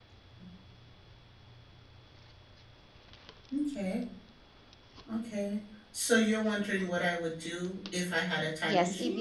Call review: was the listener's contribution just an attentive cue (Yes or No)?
No